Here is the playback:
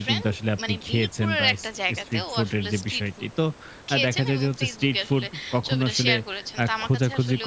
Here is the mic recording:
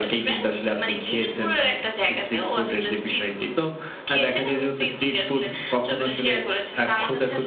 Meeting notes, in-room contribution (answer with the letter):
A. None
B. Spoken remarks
A